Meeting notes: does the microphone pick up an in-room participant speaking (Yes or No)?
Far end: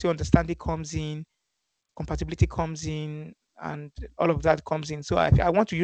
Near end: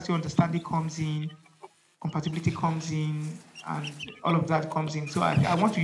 No